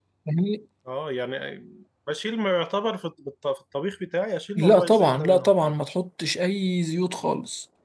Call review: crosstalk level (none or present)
present